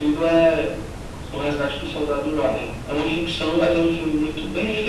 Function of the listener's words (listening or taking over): taking over